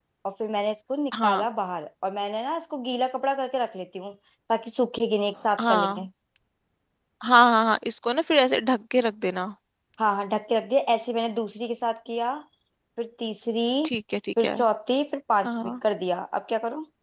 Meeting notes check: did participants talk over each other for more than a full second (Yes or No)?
No